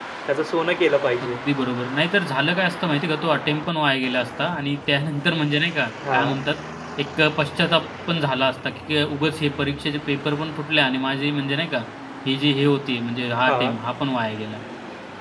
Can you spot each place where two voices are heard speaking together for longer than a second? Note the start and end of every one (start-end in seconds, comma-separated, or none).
none